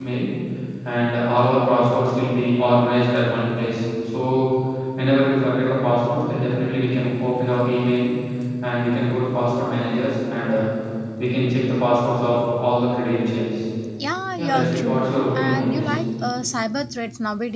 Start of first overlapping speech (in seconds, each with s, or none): 14.4 s